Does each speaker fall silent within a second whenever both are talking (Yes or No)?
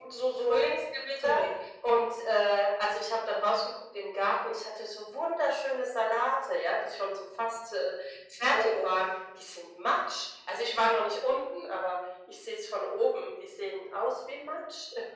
Yes